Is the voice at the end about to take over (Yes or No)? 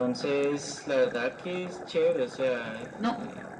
Yes